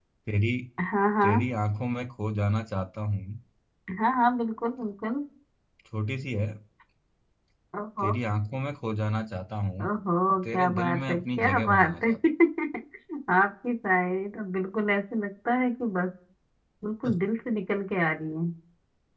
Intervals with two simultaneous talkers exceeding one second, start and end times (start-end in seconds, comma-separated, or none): 10.5-12.1